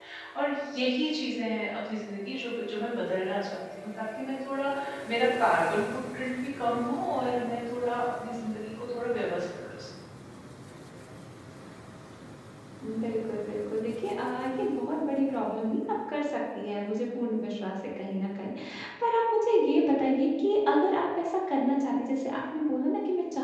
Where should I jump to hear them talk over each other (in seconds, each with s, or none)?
none